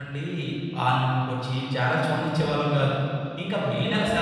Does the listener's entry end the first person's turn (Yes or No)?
Yes